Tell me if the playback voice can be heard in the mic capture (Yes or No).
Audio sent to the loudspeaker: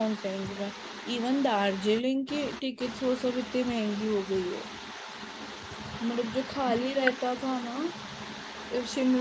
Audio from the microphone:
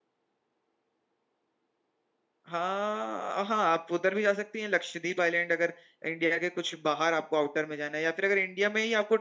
No